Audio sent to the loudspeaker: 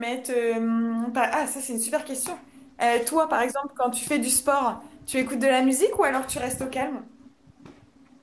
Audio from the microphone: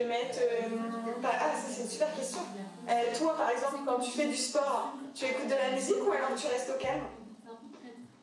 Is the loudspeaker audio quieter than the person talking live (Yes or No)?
No